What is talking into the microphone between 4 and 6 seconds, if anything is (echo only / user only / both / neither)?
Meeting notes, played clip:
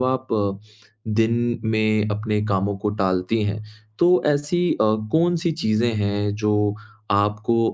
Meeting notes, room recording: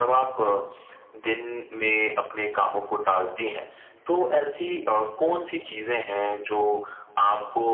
echo only